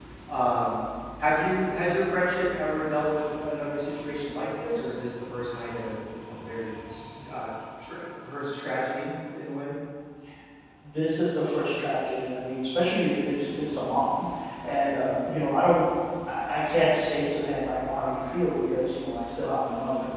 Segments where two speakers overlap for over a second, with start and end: none

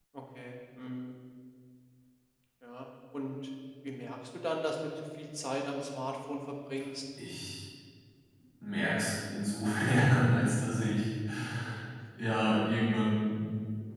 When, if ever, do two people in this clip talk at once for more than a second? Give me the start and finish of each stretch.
none

